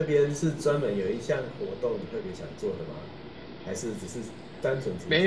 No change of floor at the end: No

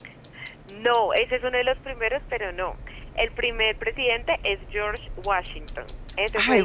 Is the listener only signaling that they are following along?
No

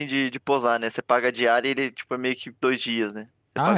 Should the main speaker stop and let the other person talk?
Yes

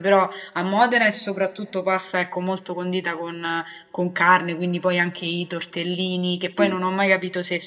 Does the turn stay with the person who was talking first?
Yes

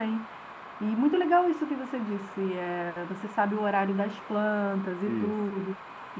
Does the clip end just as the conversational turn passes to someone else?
No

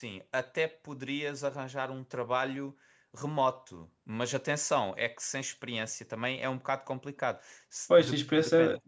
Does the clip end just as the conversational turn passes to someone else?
Yes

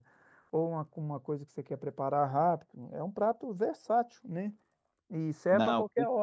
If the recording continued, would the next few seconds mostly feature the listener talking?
No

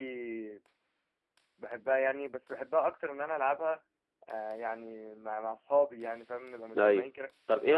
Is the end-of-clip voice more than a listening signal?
Yes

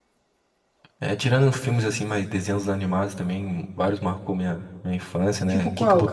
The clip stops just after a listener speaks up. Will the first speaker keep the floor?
No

